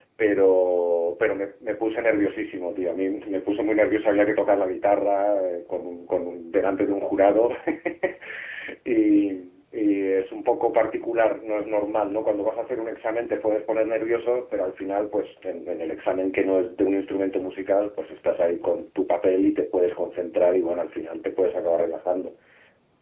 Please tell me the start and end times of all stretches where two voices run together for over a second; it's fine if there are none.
none

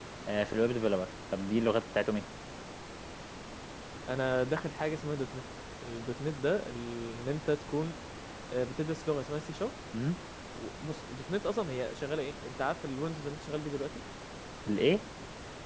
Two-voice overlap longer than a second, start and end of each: none

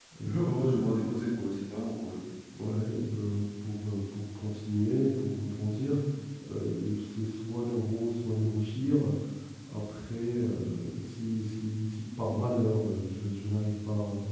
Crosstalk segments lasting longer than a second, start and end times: none

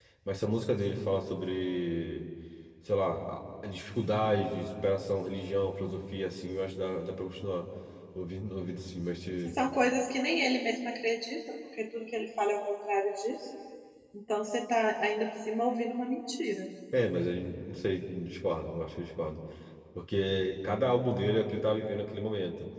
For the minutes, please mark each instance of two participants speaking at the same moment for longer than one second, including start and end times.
none

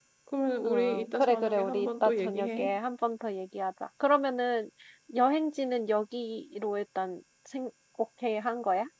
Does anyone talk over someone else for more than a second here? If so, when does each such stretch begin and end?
0.6-2.7

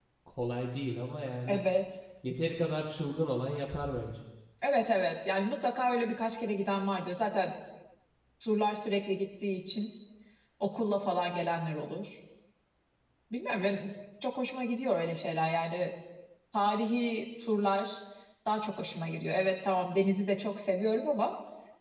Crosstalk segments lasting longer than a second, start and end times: none

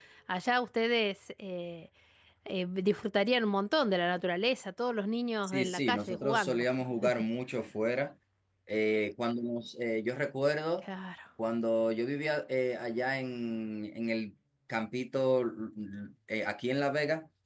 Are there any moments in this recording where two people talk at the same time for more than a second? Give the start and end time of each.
5.4-6.7

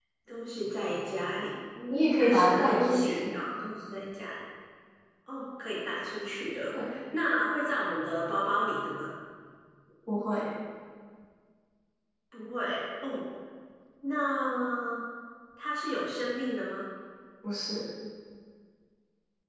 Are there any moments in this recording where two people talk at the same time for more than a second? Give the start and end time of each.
1.9-3.4

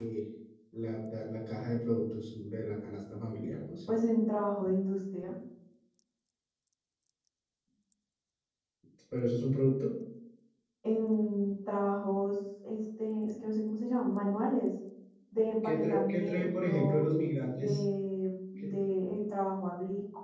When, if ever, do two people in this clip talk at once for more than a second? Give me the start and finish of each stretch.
15.6-17.0

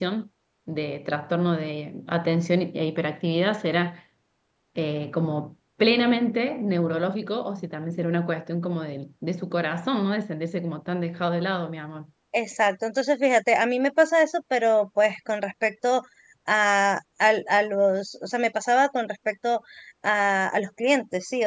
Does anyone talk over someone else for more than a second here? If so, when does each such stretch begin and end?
none

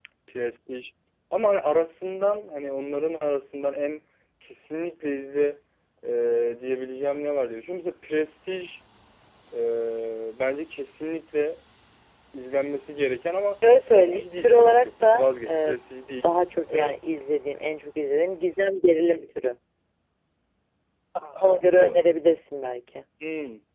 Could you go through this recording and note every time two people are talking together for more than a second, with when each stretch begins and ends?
13.9-15.8

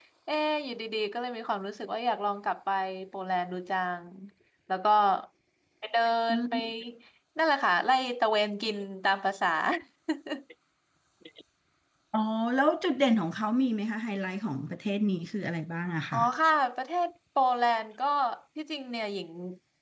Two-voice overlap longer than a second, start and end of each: none

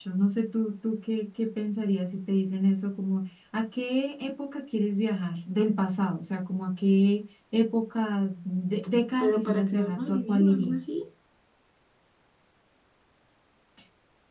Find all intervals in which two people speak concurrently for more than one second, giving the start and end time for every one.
9.2-10.9

